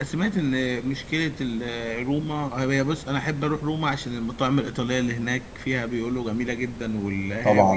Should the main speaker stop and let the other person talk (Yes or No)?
Yes